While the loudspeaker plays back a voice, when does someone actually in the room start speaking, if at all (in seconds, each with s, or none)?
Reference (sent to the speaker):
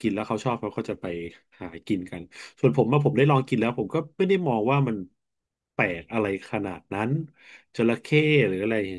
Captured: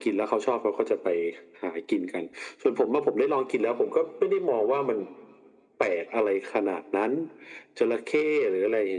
none